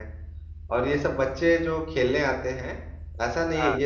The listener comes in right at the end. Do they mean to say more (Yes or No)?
No